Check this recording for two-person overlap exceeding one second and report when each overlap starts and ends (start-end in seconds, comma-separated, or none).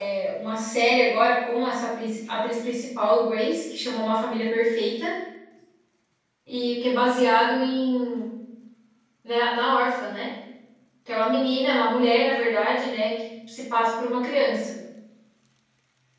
none